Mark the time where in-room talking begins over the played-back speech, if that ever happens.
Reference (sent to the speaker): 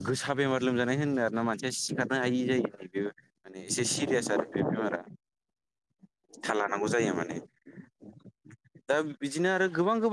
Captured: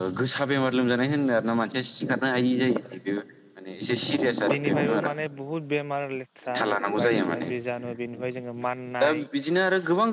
5 s

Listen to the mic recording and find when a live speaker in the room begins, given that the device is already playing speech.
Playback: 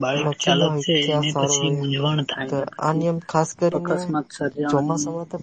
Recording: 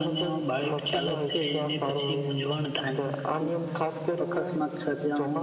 none

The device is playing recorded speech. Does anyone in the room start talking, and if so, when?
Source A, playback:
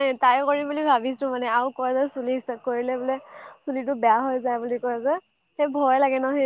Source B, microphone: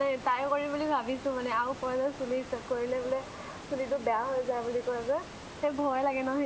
none

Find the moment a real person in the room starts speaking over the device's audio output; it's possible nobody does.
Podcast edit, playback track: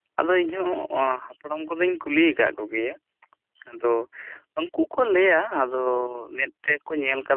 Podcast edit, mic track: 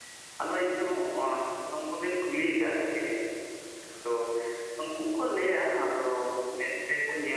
none

